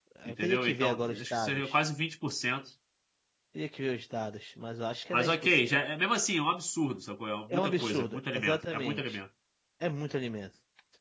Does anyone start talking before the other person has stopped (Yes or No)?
Yes